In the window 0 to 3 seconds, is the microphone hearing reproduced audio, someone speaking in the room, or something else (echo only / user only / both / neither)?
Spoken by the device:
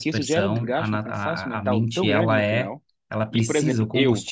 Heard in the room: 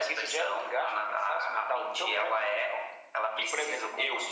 echo only